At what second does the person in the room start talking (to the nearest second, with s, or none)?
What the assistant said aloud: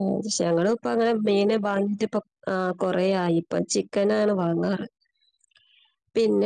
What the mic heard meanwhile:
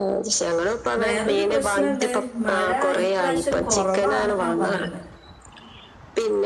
1 s